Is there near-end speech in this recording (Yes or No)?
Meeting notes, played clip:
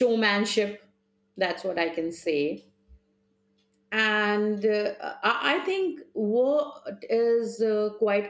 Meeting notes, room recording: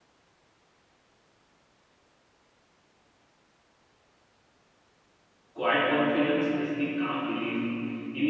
Yes